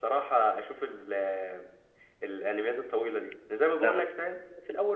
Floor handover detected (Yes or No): No